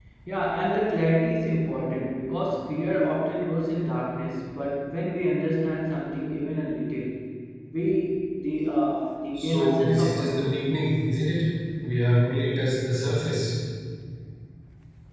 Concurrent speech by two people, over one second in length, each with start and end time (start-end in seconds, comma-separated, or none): 9.4-10.6